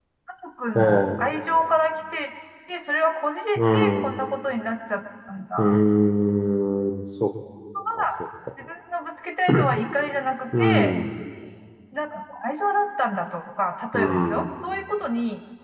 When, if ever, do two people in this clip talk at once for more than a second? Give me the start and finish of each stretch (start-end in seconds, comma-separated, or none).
none